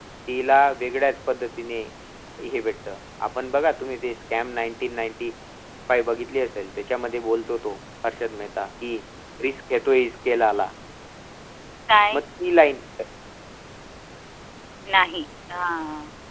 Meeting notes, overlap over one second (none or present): none